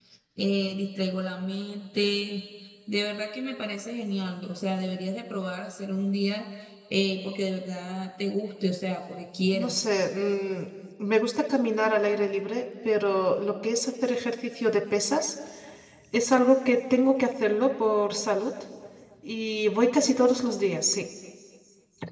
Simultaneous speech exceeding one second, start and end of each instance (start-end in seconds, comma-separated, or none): none